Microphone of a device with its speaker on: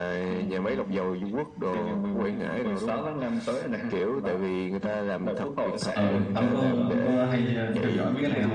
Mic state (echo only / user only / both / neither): both